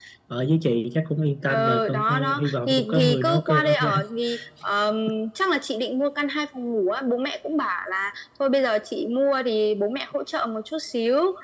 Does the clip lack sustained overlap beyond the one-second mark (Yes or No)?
No